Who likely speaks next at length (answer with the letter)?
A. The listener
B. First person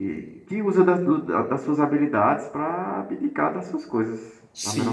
A